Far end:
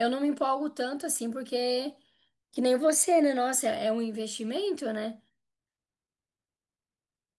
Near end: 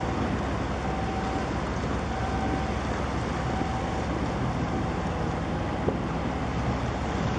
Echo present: No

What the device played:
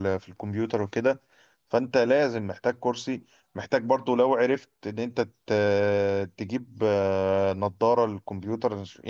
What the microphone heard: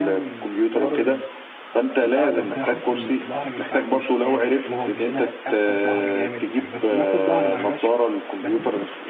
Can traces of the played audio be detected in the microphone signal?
Yes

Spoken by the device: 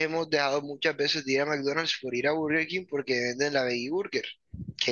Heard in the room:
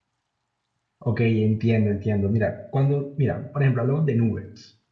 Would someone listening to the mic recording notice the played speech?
No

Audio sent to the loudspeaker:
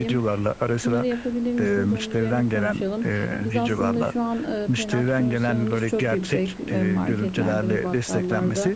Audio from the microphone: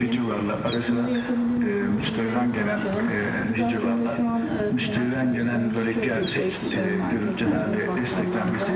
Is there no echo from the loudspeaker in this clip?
No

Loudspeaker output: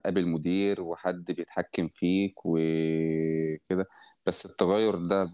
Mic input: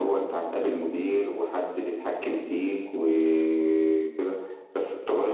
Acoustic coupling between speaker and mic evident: Yes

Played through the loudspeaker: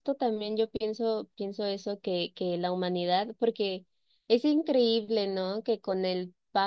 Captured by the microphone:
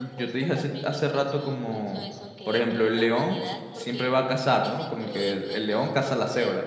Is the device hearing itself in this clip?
Yes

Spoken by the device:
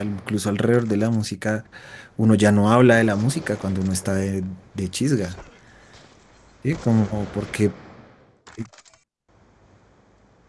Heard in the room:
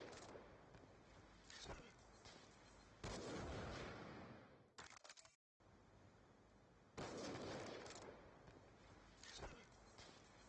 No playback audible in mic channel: Yes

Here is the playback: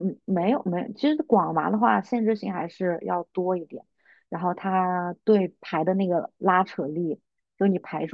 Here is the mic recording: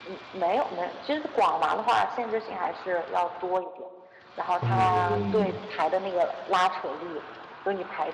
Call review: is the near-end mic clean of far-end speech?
No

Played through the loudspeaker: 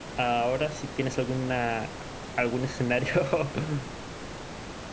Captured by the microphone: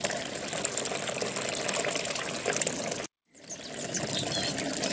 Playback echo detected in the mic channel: No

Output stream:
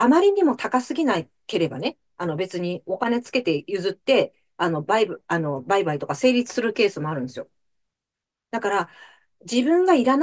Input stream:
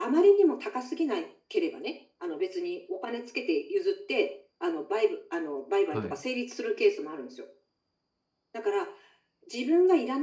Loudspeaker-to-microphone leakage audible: Yes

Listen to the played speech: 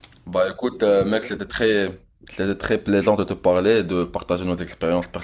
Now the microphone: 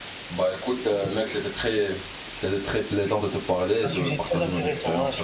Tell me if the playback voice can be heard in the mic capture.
Yes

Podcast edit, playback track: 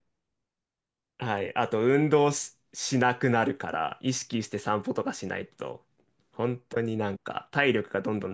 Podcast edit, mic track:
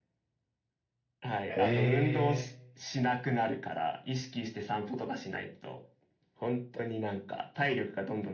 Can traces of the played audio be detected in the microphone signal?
Yes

